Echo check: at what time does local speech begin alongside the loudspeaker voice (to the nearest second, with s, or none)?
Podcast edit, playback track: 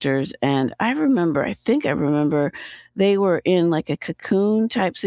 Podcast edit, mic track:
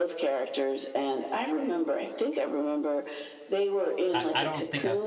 4 s